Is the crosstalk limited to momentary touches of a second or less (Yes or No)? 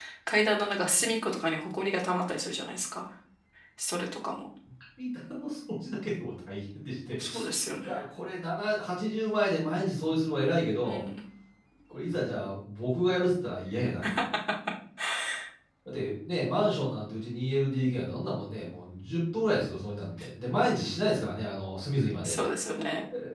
Yes